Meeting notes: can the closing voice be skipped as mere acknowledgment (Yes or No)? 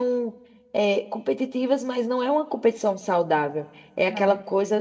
Yes